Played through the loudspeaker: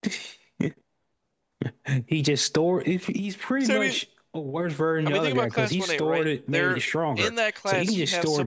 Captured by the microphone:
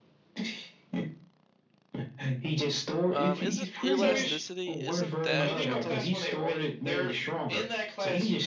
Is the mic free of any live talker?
No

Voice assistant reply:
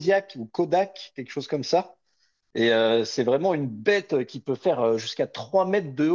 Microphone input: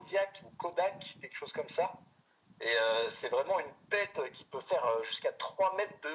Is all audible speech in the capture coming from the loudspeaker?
Yes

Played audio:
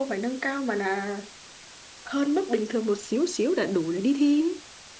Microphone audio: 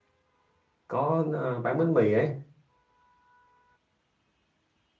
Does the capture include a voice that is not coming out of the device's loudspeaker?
Yes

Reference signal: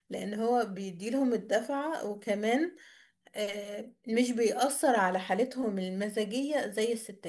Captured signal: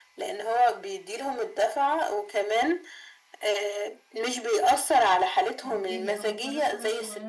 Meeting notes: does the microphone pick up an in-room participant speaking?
Yes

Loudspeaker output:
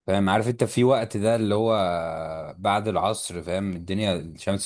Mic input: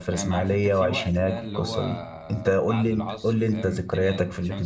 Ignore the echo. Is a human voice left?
Yes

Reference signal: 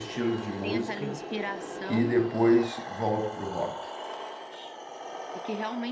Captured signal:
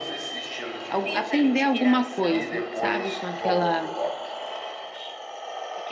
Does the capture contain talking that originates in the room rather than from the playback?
Yes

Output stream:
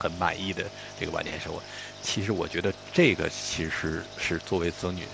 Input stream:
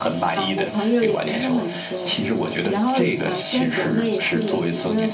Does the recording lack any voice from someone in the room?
No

